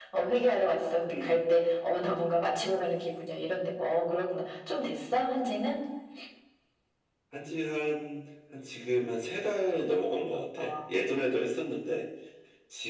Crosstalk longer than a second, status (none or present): none